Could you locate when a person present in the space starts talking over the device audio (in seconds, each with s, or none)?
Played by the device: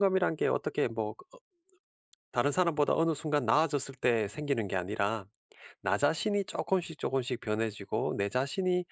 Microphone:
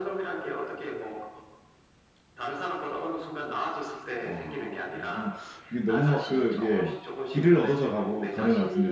4.2 s